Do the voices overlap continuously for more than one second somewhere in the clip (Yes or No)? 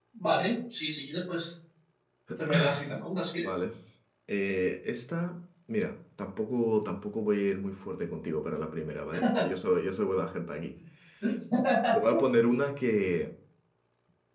No